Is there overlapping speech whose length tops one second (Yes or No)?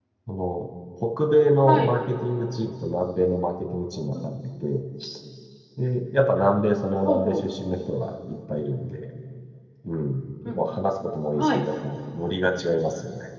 No